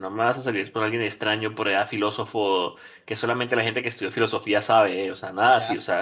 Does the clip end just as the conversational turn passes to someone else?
Yes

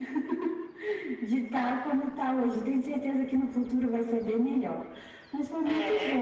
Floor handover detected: No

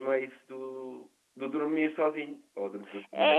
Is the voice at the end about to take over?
Yes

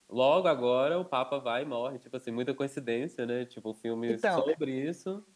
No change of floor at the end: Yes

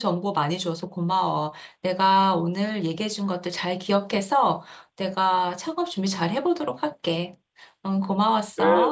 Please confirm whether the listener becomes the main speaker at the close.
Yes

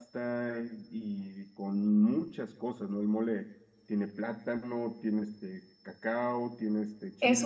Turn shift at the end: Yes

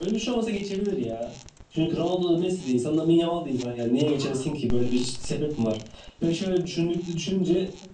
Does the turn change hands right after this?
No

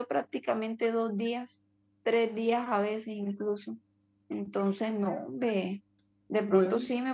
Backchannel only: Yes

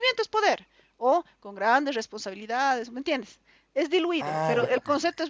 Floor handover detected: No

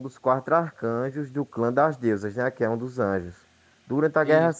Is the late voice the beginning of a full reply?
No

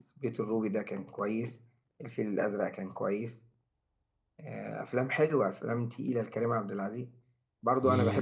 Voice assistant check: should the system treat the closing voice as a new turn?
No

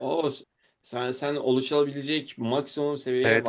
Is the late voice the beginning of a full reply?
Yes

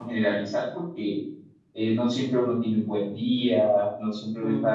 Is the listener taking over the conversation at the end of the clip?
No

